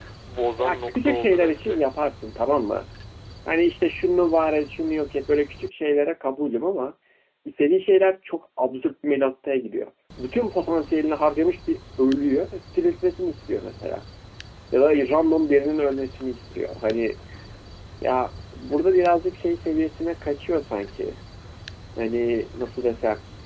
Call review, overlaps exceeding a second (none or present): present